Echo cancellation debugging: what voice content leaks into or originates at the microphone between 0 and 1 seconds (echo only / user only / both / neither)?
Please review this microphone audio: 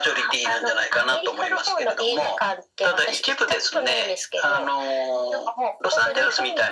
echo only